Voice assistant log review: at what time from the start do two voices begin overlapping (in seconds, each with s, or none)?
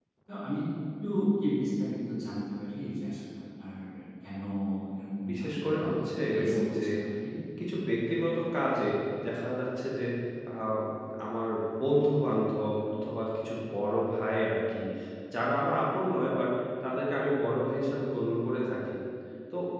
5.3 s